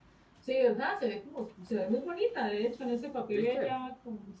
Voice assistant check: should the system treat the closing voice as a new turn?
No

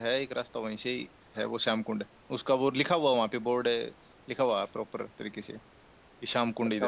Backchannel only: No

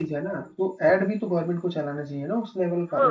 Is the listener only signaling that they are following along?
No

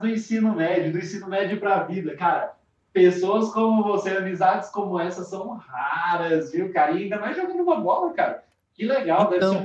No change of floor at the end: Yes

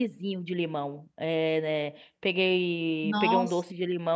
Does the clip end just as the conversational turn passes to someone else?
No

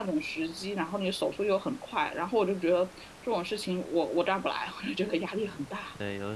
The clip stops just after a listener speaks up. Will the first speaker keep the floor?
No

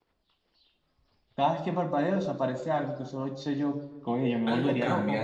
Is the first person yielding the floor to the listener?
Yes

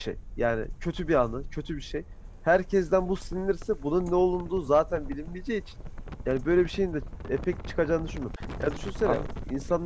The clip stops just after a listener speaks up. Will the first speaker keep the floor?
Yes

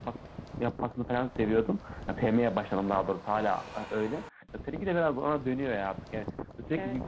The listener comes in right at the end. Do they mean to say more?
No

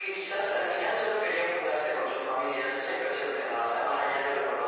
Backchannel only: Yes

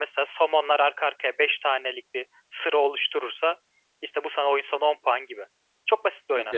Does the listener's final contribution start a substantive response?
Yes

